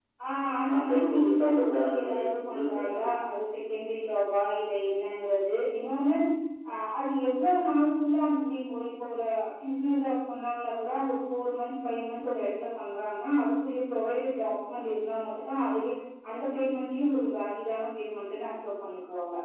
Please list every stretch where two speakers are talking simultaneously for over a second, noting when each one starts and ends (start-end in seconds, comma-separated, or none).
0.7-3.1